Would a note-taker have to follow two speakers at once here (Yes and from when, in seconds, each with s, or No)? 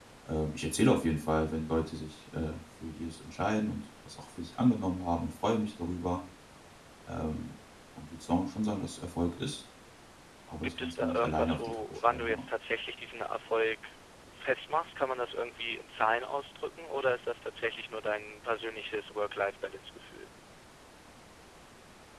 Yes, from 10.8 s